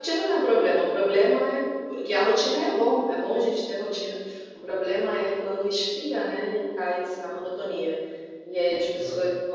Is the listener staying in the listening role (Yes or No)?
Yes